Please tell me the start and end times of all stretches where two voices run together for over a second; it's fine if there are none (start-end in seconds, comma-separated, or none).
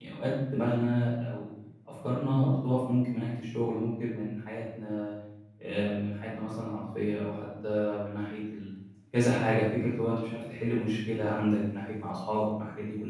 none